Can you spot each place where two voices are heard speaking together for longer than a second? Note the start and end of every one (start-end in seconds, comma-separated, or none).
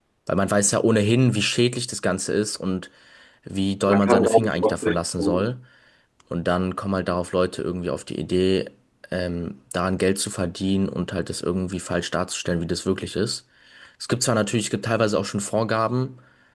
3.9-5.5